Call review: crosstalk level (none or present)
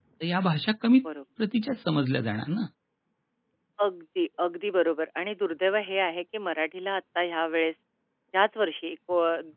none